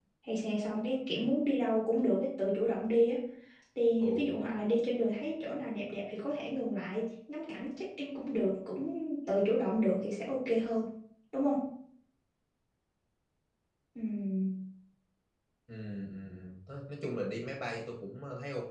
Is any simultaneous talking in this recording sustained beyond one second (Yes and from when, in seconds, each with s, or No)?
No